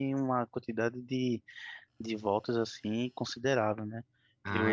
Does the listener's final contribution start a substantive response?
Yes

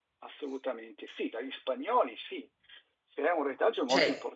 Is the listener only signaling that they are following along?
Yes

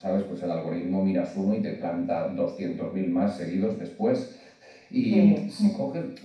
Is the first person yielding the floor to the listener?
No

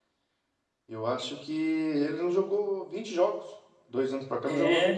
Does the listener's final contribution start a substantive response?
No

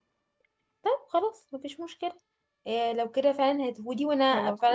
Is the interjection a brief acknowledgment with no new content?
Yes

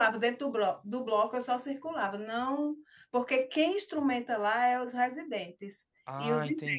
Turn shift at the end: Yes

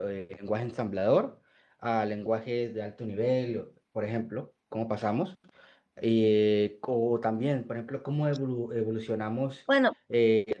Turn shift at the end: No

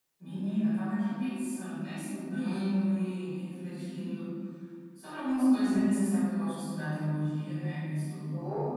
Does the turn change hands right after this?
Yes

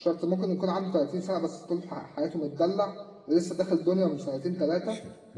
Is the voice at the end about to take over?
Yes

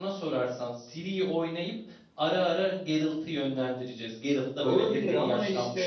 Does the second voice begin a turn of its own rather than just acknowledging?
Yes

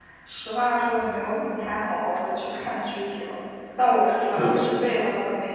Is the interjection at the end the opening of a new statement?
No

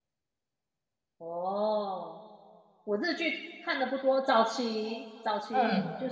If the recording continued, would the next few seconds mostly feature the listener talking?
No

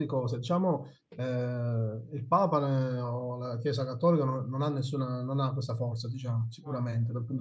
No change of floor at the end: Yes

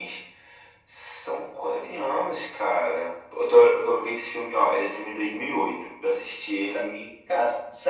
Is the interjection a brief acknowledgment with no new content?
No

